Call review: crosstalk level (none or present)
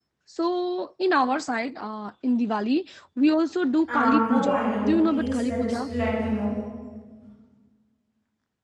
present